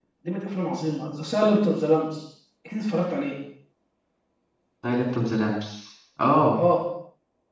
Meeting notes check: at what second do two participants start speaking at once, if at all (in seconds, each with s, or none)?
none